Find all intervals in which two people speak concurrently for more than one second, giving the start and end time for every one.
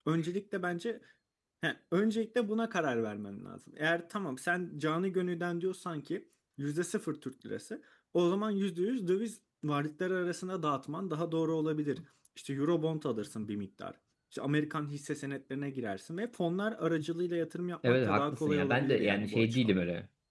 17.9-19.8

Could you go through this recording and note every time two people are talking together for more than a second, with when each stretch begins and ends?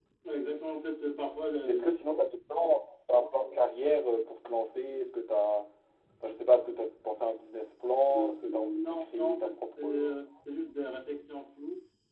8.1-10.0

